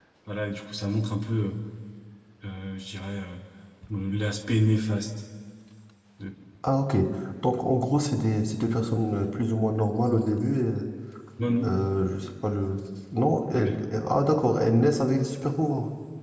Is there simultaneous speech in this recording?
No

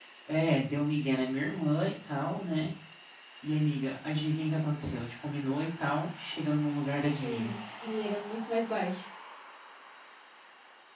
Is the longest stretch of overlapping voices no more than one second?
Yes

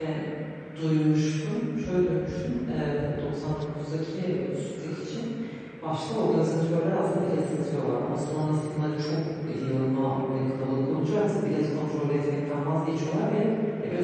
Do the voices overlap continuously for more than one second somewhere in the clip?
No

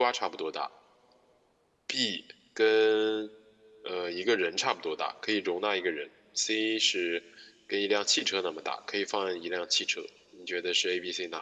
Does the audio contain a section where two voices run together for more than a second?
No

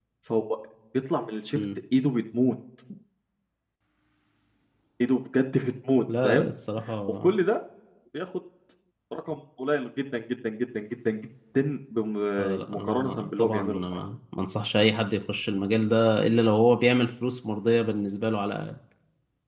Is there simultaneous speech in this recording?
Yes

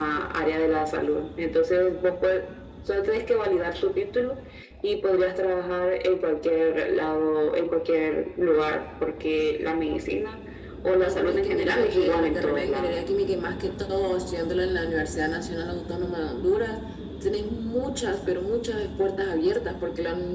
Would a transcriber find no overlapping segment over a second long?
No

